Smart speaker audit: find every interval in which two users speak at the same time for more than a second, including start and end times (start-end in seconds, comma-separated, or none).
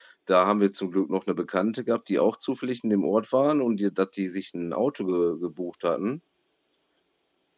none